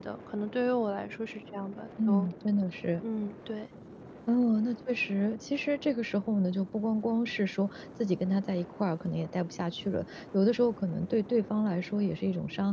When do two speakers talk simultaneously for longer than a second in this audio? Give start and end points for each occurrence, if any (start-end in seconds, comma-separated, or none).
none